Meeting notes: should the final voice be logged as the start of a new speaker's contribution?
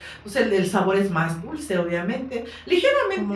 No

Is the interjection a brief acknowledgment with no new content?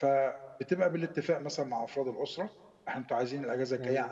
Yes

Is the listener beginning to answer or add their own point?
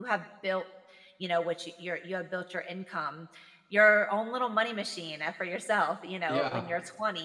No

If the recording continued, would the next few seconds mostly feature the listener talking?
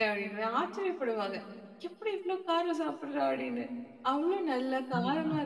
No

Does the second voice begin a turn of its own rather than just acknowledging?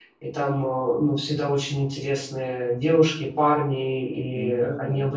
No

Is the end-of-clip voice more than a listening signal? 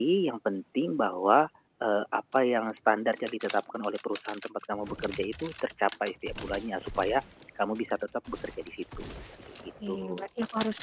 Yes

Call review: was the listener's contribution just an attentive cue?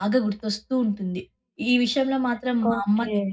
Yes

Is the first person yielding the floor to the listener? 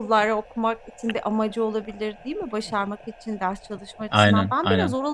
No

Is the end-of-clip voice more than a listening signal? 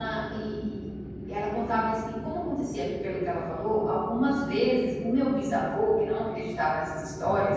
No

